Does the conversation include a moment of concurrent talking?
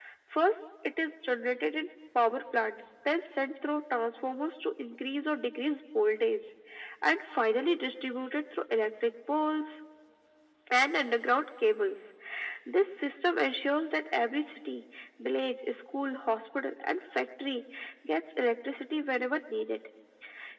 No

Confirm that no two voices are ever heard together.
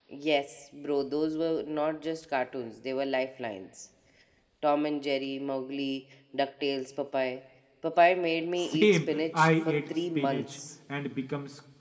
No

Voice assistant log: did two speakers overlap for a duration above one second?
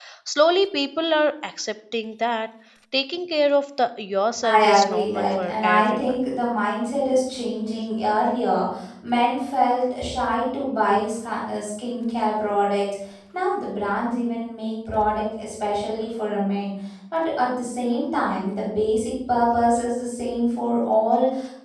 Yes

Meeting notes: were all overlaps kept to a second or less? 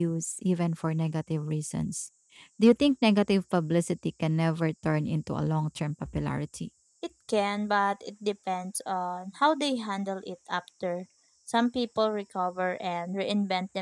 Yes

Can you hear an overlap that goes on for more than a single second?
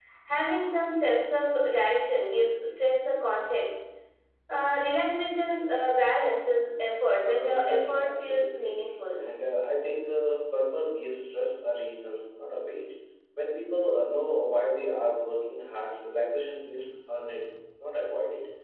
Yes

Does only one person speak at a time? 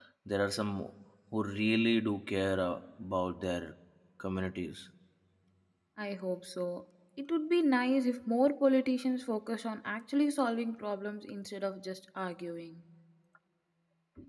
Yes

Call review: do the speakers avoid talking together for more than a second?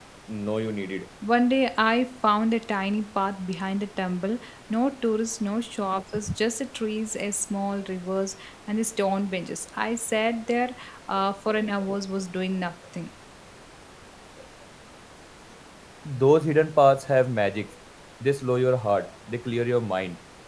Yes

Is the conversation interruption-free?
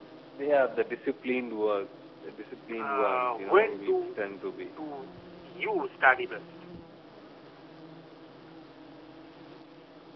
No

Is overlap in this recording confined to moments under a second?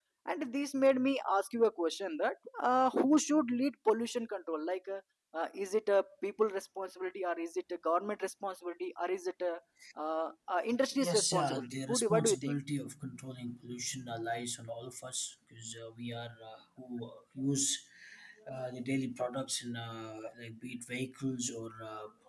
No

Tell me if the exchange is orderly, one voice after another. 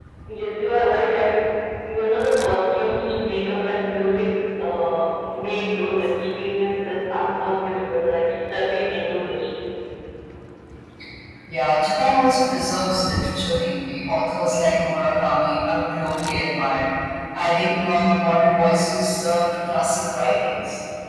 Yes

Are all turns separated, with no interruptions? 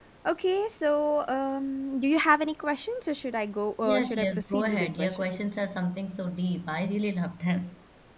No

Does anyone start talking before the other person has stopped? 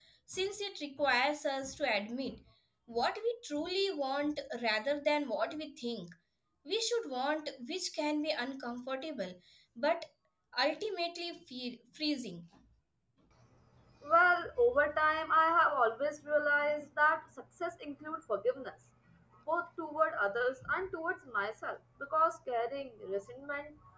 No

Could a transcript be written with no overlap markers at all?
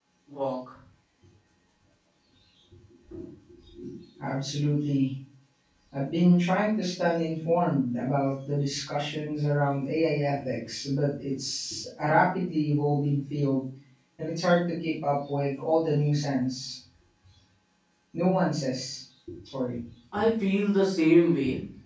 Yes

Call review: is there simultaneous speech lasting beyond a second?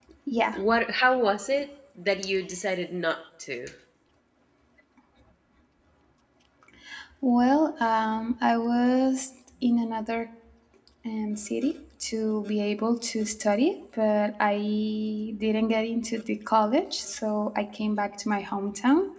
No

